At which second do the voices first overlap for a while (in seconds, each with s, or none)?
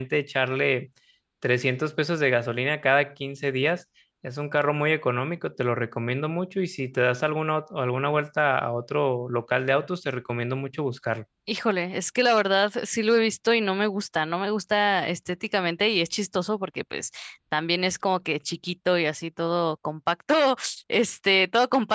none